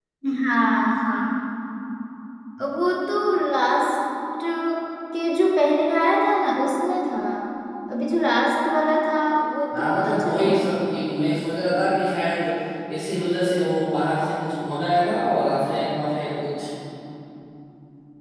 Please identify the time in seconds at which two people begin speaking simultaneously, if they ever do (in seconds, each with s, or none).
9.7 s